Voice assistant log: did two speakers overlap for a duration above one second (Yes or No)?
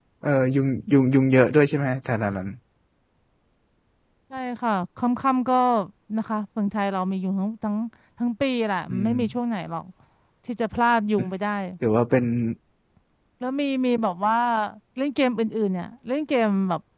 No